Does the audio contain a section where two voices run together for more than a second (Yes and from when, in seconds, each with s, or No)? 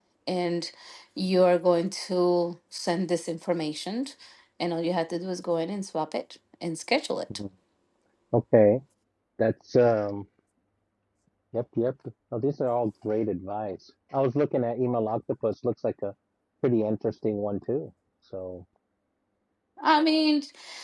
No